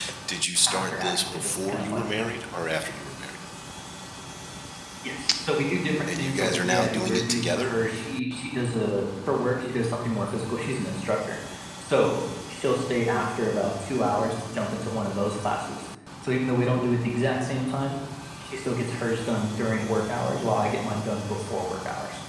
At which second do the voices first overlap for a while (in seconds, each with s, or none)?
0.7 s